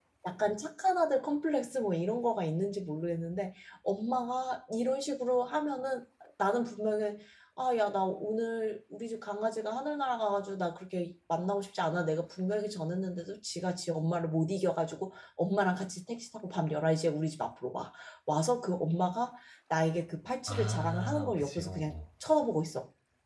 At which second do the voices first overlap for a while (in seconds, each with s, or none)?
20.5 s